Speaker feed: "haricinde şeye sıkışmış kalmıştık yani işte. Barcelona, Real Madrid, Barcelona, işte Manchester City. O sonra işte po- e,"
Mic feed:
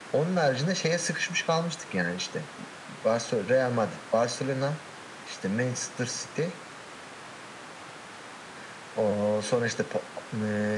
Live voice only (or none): none